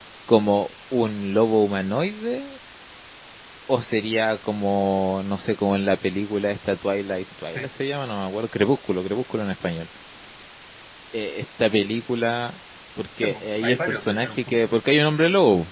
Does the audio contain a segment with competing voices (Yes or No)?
Yes